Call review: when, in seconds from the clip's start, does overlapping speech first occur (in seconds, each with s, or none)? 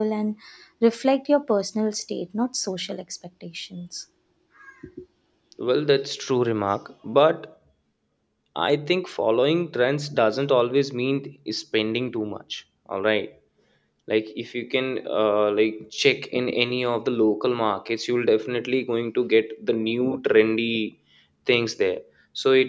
none